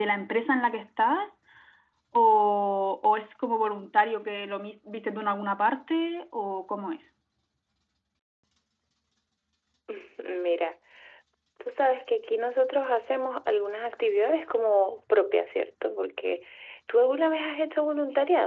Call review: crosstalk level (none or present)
none